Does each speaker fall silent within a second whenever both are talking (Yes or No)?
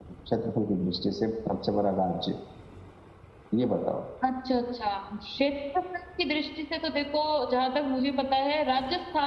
Yes